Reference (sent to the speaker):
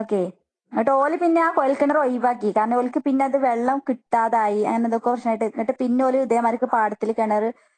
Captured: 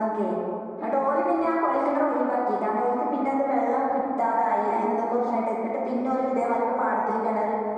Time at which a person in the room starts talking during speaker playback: none

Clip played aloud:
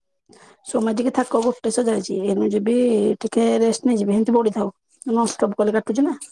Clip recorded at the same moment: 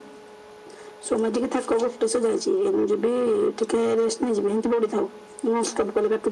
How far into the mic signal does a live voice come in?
none

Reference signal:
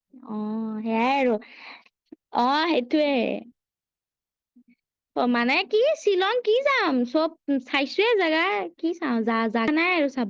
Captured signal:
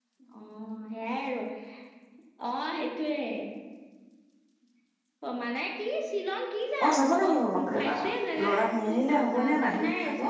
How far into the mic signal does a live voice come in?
6.8 s

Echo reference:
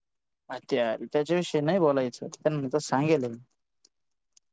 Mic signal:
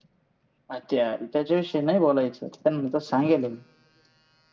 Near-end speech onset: none

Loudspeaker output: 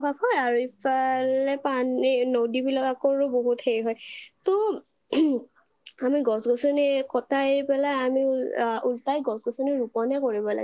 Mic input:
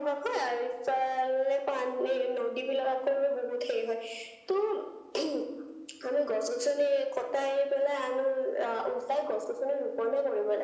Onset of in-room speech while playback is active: none

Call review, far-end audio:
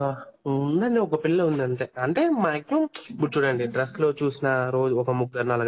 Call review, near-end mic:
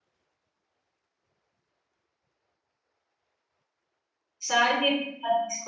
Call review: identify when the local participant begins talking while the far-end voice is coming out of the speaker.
4.5 s

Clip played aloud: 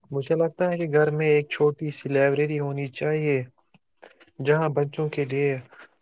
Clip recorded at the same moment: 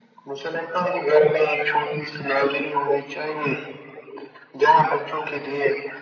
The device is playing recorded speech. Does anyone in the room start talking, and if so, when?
none

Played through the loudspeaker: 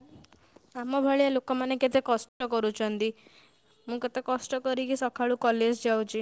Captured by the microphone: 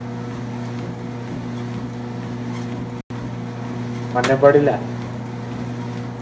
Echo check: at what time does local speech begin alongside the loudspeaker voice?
4.2 s

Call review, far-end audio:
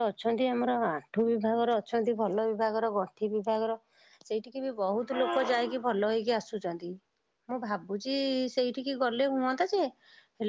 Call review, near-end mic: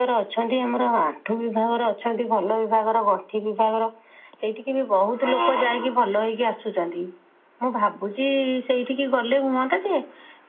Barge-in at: none

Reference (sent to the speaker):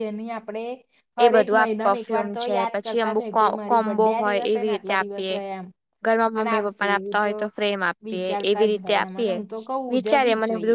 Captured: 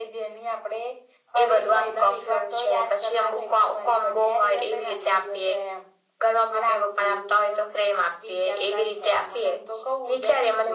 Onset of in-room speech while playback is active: none

